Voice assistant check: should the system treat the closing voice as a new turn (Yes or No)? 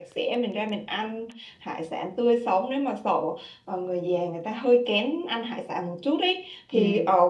No